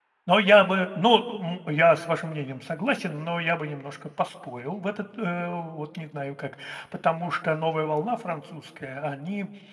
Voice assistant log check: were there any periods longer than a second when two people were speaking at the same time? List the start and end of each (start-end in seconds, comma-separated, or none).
none